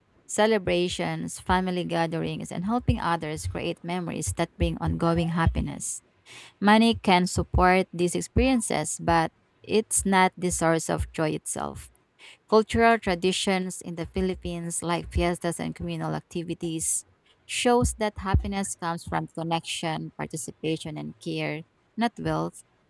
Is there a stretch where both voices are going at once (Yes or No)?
No